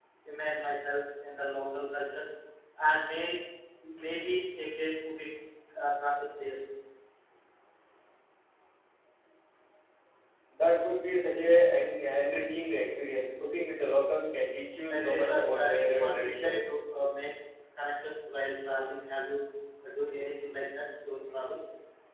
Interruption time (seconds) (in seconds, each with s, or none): 14.9 s